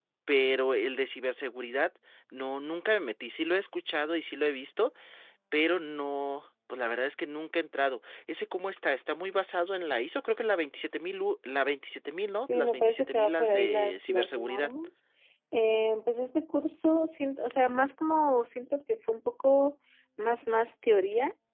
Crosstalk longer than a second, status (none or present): present